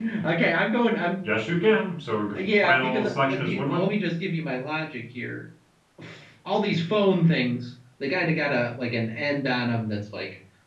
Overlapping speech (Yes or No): Yes